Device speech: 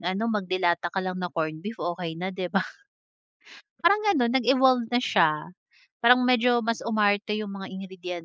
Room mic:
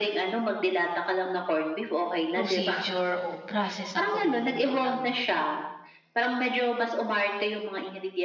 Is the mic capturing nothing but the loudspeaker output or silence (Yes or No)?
No